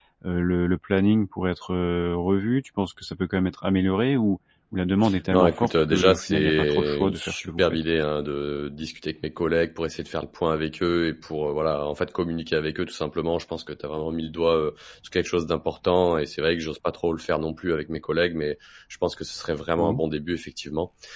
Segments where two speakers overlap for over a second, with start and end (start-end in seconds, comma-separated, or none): 5.3-7.8